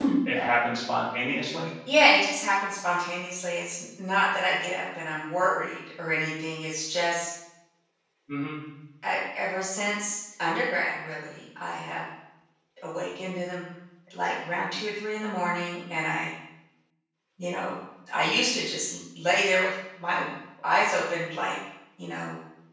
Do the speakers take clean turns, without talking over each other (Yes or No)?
Yes